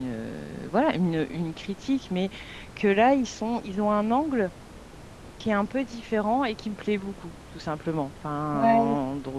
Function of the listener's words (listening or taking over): listening